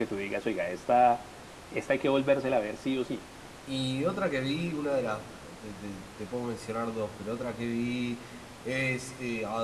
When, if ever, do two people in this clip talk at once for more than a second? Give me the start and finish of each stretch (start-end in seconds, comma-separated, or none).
none